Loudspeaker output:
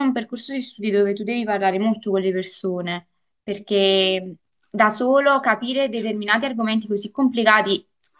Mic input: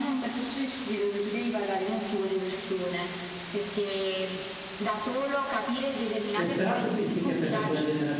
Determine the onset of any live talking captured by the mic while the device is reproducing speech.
6.3 s

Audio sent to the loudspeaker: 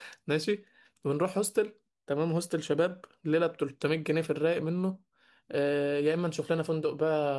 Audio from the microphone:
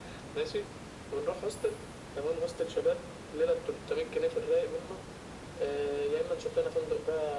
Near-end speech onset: none

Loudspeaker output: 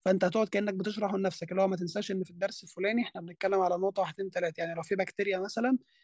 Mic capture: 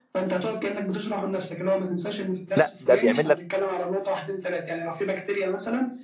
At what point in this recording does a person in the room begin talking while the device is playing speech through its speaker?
2.5 s

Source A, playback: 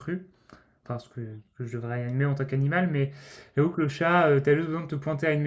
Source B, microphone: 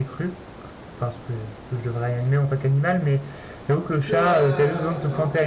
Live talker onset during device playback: 4.0 s

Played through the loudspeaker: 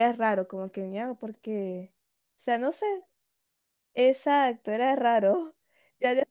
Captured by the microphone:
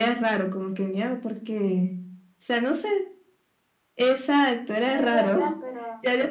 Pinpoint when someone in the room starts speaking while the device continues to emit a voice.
4.7 s

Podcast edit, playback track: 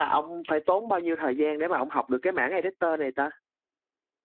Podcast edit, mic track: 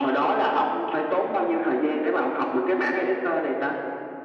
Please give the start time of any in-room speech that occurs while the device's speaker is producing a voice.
none

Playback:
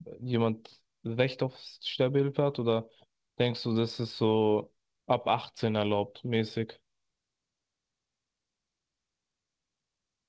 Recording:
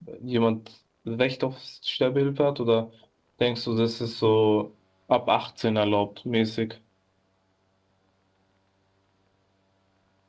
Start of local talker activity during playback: none

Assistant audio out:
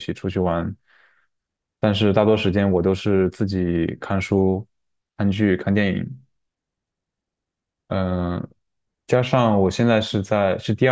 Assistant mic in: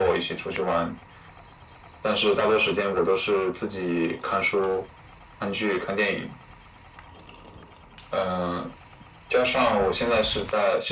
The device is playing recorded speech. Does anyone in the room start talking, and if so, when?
none

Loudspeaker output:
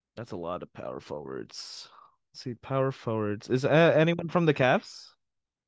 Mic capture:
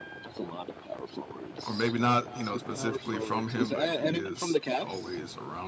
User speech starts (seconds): 1.7 s

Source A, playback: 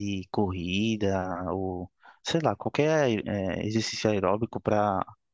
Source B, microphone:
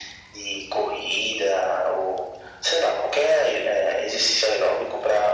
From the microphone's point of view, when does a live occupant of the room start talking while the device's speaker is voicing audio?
none

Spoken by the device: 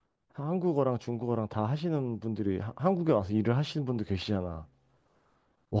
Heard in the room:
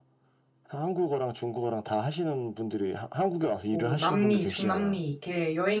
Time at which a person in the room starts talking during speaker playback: 3.7 s

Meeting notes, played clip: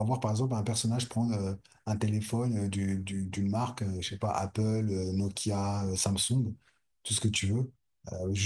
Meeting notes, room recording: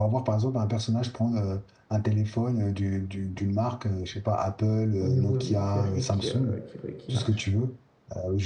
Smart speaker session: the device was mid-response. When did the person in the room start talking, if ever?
5.0 s

